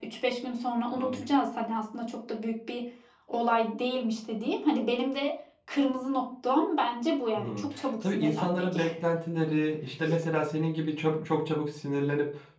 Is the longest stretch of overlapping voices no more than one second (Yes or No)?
No